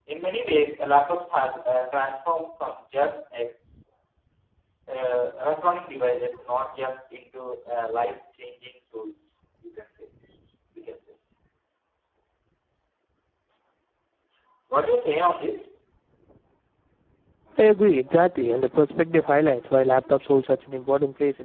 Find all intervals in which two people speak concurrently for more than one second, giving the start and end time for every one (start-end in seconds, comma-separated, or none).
none